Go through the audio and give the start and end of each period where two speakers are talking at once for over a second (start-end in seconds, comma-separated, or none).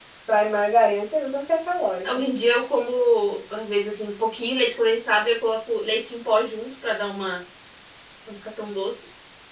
none